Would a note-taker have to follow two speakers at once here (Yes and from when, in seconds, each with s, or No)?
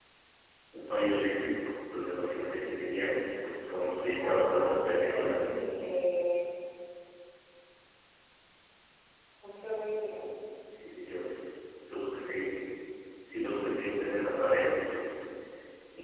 Yes, from 3.9 s